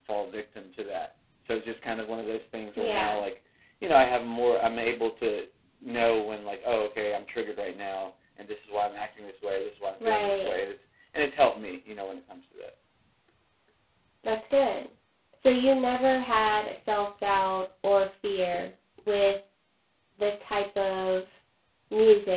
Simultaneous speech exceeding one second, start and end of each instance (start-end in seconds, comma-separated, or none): none